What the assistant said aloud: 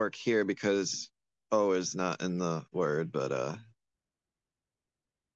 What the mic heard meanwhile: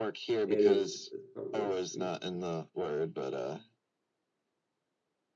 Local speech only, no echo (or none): It is. It's probably a sweet. yeah.